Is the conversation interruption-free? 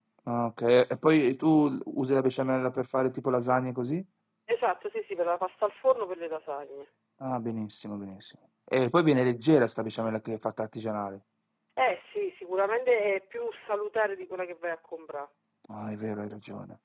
Yes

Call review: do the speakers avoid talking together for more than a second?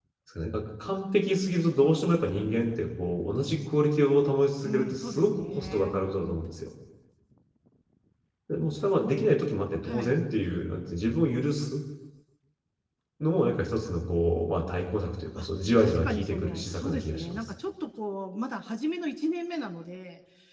No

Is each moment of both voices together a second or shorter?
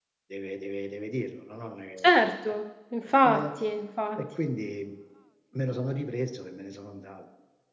Yes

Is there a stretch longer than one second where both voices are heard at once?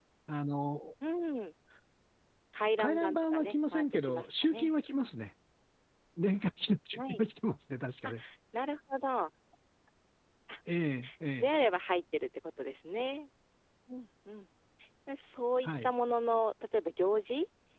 Yes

